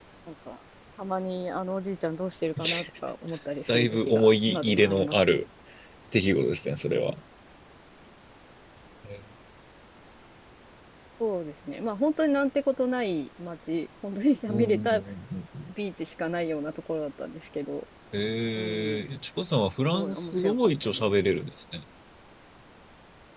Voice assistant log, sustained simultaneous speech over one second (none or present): present